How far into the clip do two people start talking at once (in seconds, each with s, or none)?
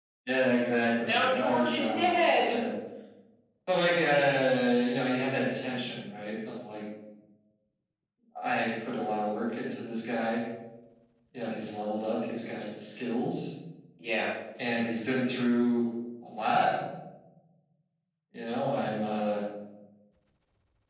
1.1 s